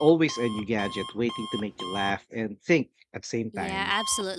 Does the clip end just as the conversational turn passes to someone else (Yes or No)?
Yes